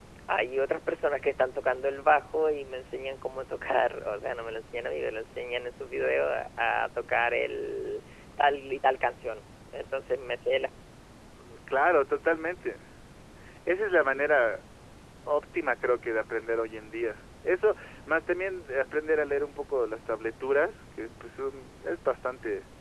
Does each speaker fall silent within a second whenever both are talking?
Yes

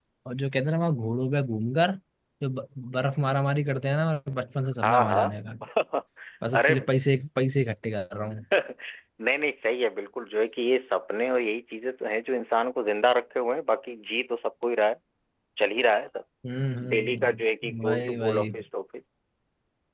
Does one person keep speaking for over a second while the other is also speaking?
Yes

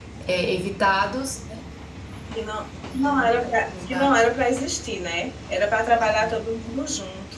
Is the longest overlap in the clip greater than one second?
No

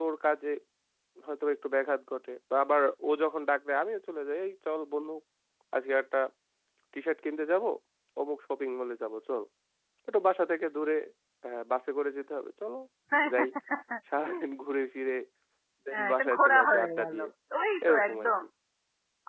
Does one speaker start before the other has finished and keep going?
Yes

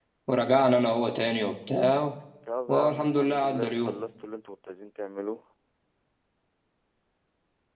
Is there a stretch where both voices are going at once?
Yes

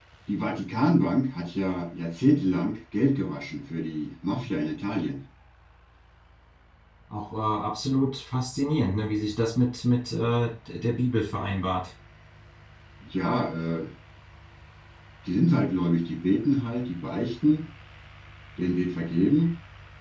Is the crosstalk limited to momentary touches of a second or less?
Yes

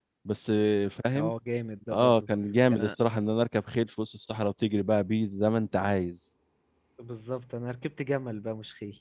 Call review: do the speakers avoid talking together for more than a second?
Yes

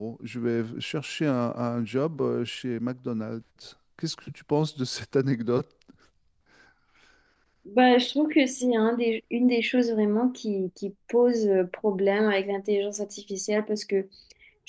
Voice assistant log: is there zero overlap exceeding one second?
Yes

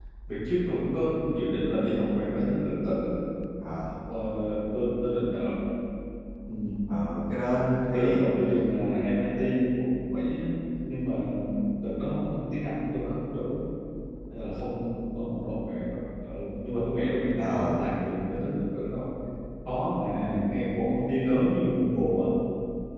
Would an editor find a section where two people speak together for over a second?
No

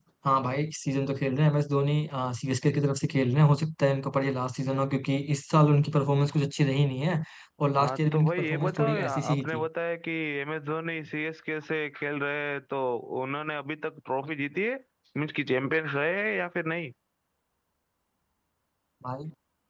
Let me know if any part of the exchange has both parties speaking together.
Yes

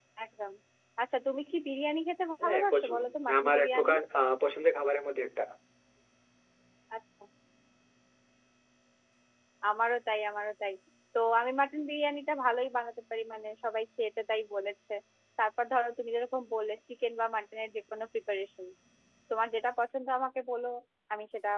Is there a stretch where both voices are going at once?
Yes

